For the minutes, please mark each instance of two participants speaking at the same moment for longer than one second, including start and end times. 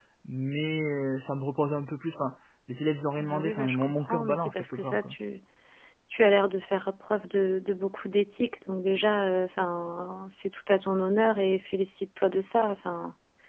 3.2-5.1

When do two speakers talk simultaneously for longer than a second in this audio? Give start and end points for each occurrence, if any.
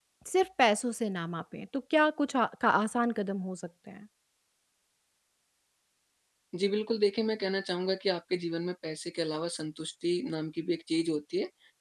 none

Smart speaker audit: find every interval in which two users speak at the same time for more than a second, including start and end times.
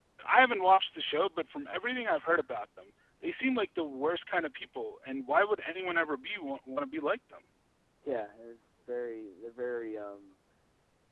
none

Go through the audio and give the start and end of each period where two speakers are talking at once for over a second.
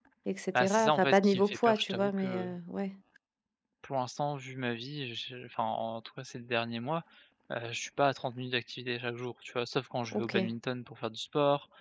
0.6-2.5

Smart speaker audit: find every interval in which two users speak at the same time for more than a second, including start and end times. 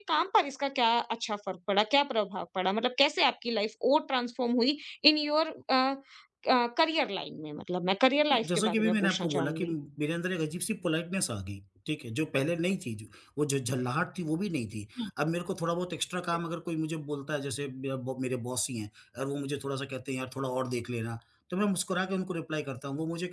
8.3-9.7

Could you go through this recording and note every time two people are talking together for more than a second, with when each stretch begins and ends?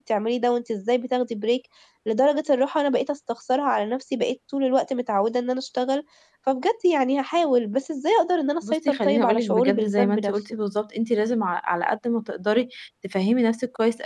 8.7-10.4

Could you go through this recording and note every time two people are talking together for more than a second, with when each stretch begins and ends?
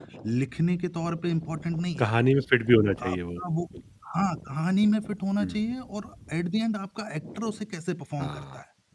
none

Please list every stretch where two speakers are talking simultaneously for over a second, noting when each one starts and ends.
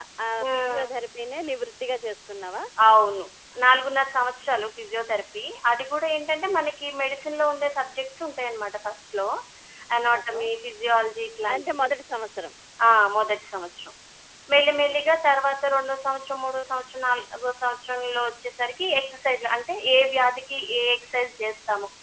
none

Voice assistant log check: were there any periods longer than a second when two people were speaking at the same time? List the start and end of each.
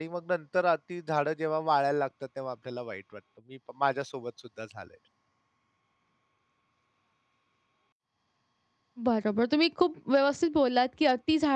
none

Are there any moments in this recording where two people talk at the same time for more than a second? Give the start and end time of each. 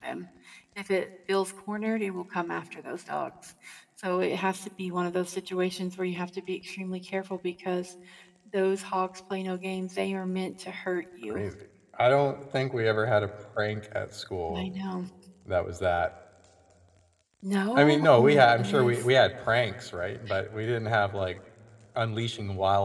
17.8-19.0

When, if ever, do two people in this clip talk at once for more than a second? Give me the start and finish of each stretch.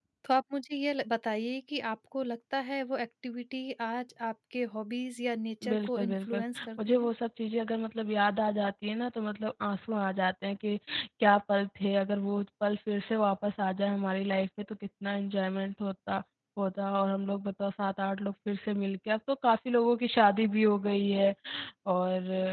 5.7-7.1

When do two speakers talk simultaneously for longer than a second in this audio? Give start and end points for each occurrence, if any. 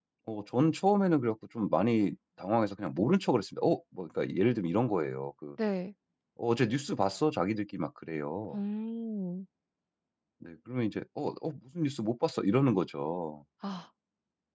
none

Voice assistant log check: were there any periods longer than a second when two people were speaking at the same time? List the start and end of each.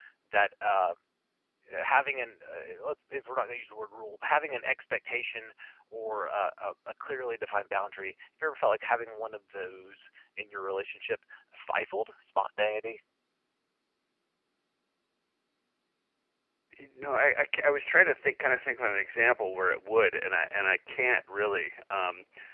none

